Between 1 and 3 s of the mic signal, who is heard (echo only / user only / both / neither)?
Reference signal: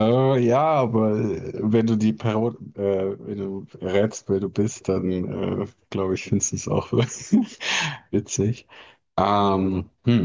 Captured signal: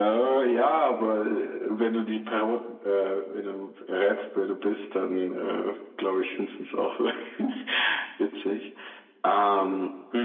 echo only